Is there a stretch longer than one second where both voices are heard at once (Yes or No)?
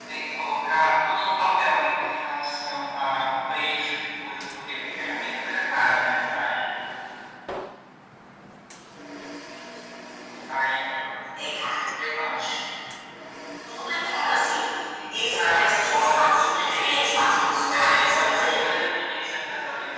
Yes